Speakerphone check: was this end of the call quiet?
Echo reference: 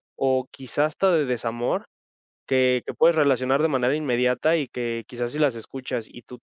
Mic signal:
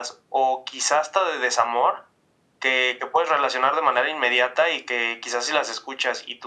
Yes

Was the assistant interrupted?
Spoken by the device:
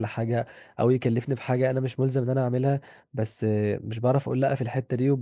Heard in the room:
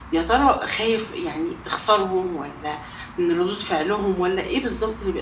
Yes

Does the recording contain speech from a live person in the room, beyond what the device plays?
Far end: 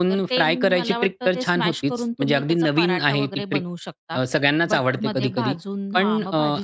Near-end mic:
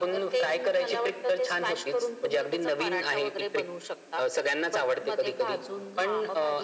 No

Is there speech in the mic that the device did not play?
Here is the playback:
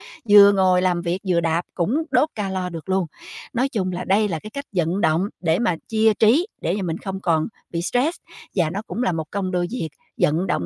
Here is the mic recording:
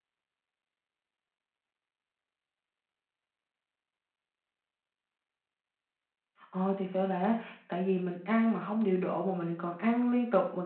Yes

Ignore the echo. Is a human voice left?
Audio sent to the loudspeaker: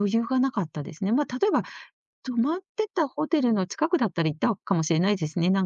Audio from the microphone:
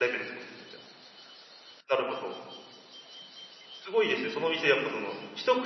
Yes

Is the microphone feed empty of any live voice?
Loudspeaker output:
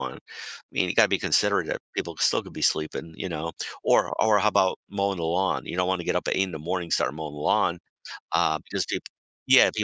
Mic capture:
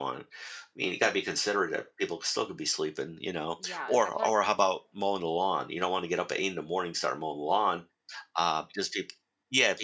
No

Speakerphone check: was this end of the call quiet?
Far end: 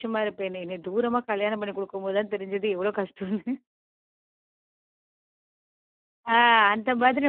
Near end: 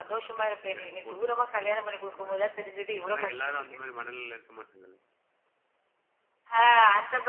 No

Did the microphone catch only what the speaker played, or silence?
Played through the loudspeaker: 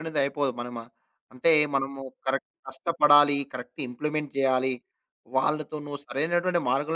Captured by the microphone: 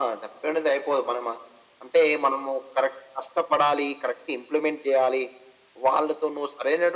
Yes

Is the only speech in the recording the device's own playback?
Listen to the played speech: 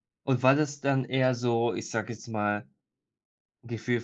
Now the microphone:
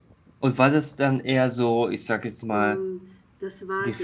No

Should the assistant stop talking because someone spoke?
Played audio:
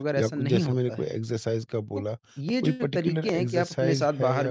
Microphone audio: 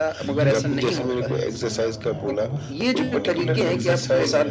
Yes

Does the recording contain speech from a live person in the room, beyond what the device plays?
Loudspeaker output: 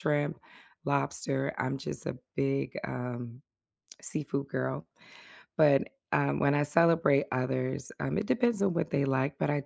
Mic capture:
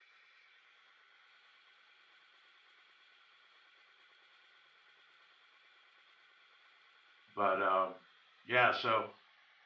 Yes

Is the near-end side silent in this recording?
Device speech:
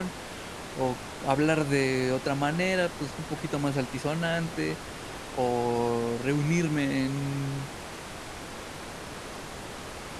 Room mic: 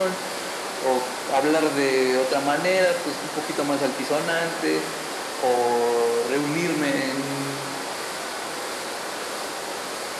Yes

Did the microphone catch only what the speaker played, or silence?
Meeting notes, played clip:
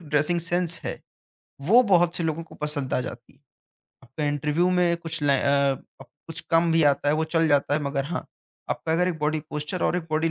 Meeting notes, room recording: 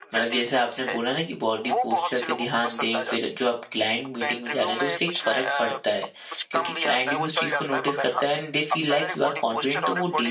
No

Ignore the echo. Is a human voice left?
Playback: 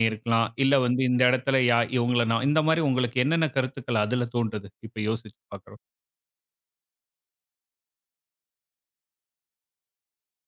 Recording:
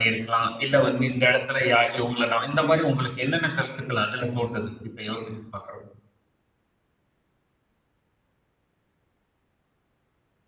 No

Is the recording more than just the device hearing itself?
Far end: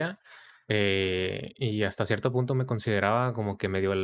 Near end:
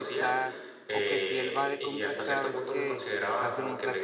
Yes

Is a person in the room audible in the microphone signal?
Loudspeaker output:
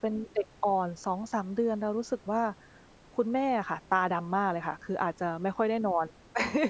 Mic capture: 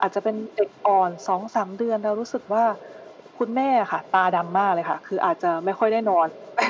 No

